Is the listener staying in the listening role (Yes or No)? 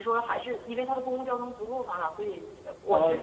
Yes